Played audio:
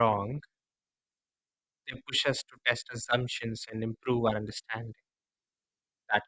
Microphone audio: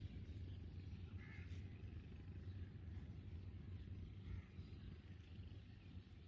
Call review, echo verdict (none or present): none